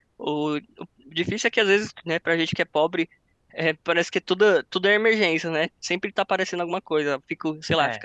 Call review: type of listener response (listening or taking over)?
listening